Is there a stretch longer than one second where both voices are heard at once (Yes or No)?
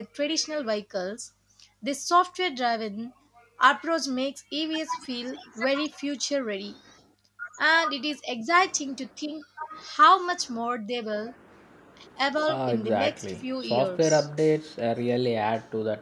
Yes